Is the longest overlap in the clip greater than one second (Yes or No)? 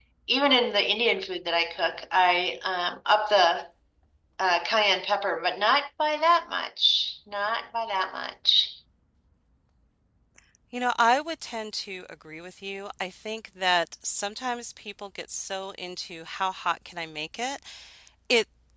No